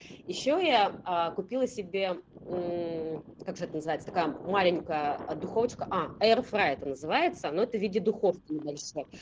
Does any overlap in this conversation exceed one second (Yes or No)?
No